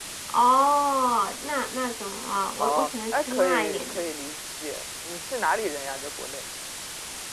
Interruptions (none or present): present